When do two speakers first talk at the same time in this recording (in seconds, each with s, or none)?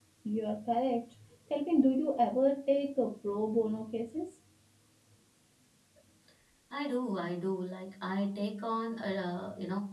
none